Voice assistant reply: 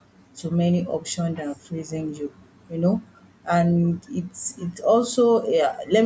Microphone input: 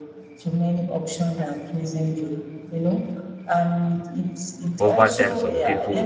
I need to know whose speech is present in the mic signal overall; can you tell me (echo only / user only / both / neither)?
both